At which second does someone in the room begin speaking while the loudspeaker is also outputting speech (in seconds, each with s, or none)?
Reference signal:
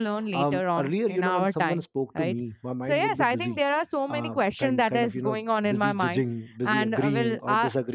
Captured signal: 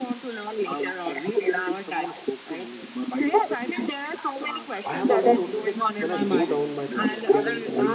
4.8 s